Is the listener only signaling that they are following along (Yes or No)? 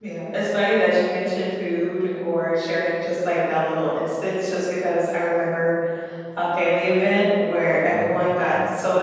Yes